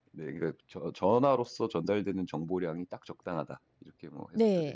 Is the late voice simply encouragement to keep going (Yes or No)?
No